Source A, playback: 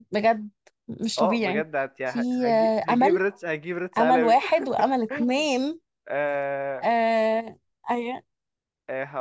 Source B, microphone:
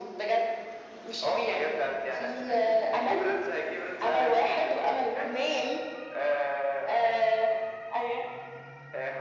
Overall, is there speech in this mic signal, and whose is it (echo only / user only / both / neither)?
echo only